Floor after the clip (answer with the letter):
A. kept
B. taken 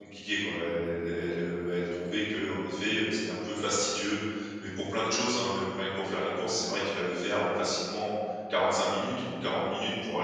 B